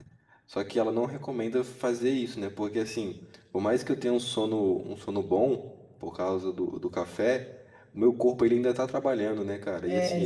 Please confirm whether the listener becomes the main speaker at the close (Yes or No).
Yes